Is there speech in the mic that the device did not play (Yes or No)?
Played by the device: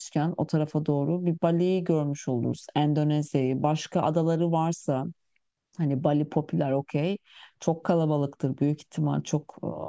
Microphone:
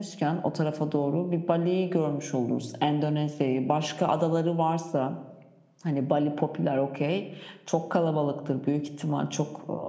No